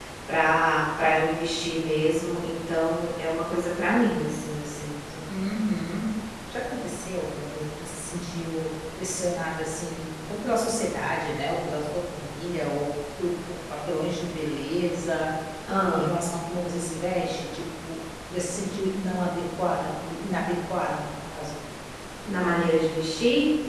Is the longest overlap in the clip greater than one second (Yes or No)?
No